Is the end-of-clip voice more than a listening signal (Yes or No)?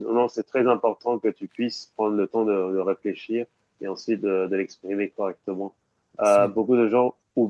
No